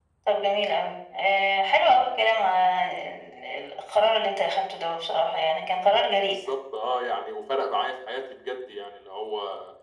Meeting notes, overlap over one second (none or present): none